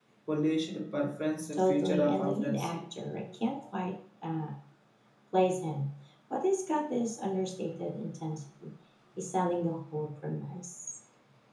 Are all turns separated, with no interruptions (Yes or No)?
No